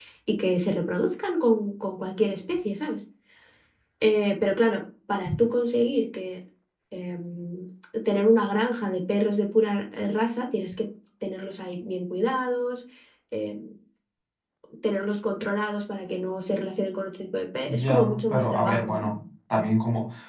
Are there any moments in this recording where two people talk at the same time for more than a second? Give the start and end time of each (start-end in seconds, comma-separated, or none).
17.7-19.1